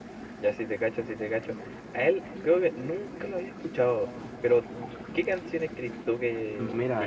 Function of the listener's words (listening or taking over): listening